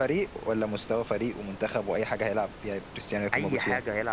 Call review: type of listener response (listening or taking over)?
taking over